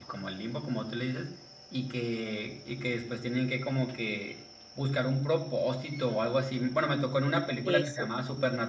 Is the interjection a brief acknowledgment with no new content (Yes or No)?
Yes